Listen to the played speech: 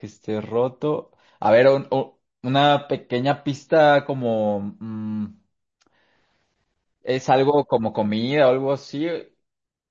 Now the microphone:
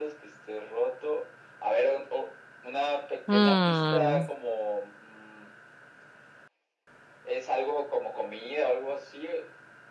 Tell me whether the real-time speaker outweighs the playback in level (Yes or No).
Yes